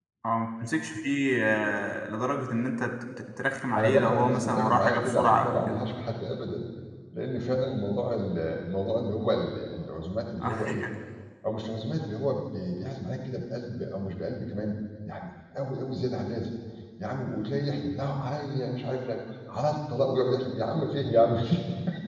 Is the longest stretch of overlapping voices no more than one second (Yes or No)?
No